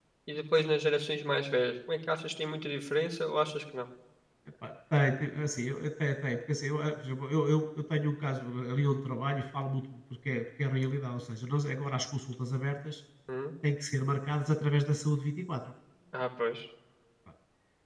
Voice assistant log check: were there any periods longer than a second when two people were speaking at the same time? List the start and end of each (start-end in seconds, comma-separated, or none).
none